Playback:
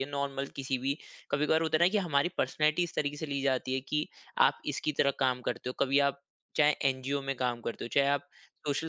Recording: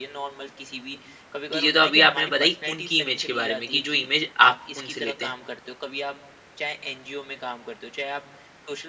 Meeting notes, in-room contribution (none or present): present